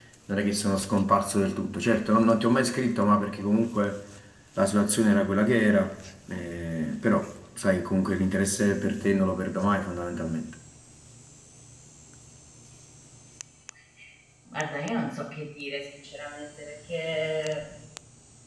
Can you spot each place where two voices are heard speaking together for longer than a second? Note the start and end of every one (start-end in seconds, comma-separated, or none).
none